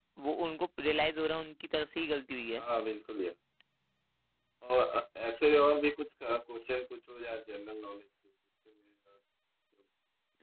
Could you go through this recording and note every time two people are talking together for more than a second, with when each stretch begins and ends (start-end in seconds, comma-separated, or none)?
none